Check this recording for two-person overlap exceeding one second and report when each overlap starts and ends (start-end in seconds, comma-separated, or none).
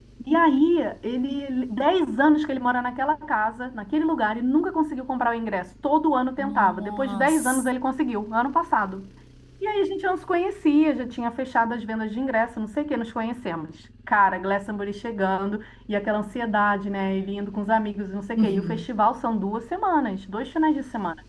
6.4-7.7